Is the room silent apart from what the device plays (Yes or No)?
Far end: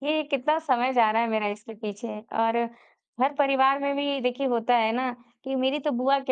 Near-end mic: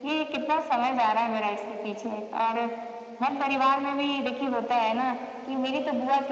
No